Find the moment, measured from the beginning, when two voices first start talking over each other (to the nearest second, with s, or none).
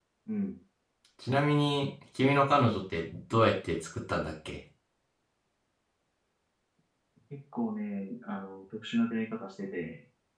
none